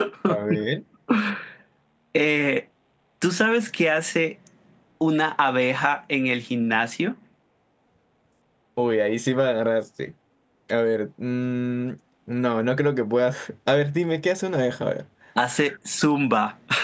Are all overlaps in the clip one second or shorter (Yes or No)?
Yes